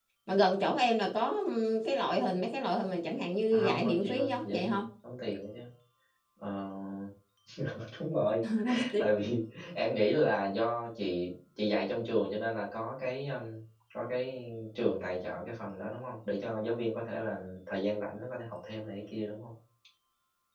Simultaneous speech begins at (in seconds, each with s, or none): 3.5 s